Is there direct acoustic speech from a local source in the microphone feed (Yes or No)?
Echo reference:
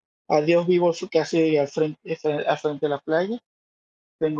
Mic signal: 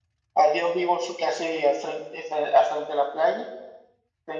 No